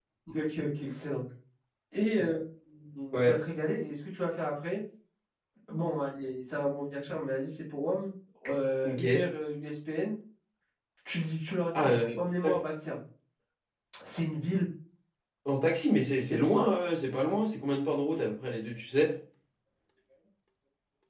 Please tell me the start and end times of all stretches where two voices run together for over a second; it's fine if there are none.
none

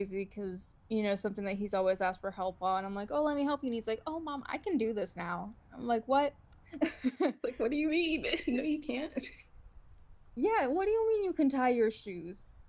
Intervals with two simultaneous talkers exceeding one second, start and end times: none

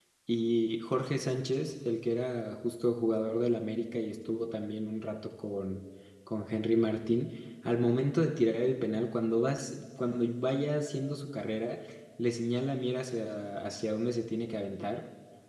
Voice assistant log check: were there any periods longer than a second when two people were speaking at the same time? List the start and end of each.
none

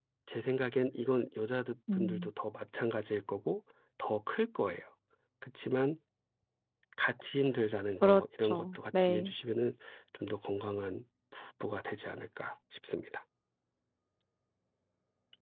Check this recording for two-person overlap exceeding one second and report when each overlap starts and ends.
8.0-9.3

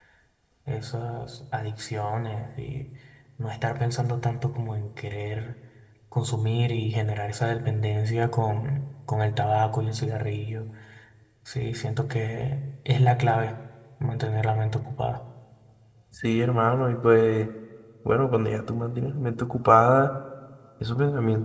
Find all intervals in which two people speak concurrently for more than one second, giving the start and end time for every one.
none

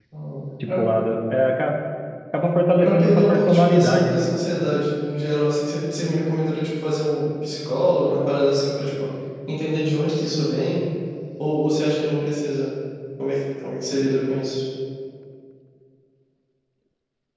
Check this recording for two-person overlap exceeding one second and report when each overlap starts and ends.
2.8-4.2

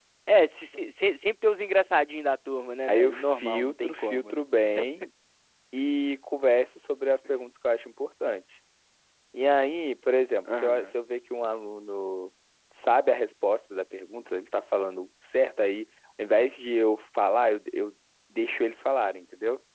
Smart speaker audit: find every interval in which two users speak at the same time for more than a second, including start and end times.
2.9-4.4

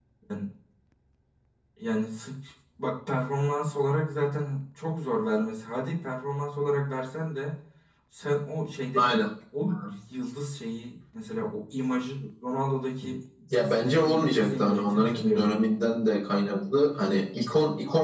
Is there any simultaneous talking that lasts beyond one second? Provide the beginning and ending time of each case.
13.5-15.4

